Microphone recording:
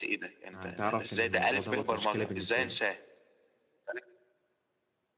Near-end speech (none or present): present